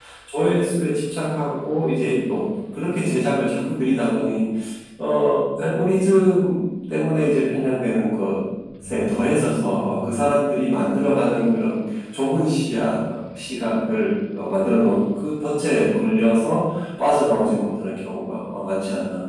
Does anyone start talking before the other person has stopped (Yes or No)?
No